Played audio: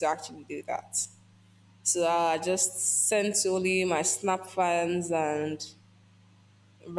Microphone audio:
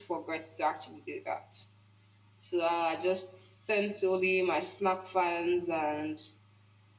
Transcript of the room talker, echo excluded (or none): none